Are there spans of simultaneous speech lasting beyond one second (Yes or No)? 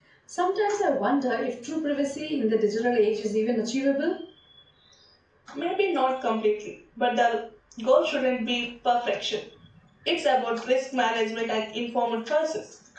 No